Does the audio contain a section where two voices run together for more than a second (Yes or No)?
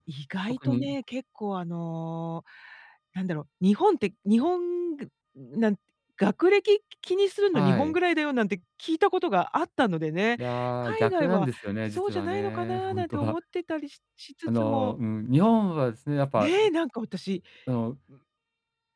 Yes